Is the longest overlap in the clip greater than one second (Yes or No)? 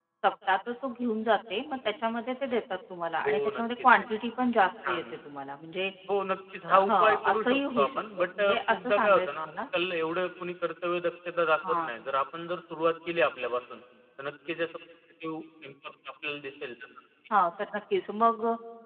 Yes